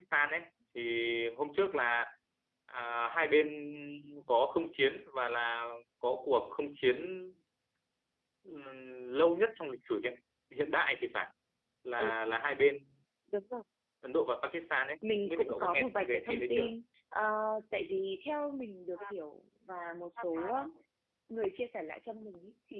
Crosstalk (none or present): present